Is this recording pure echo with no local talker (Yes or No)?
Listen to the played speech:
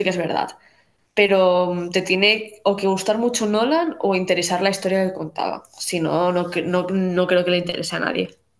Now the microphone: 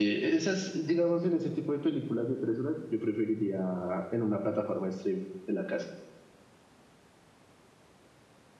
No